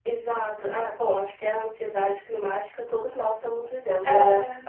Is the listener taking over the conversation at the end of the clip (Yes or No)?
No